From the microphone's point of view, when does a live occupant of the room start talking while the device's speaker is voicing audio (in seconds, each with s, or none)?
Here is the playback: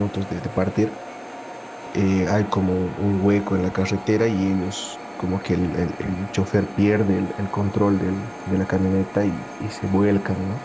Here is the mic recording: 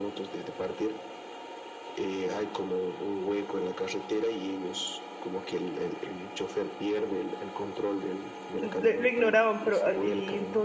8.5 s